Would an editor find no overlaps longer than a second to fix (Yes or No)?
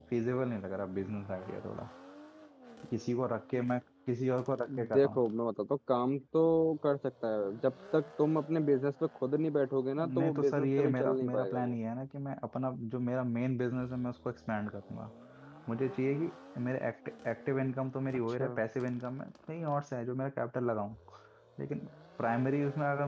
No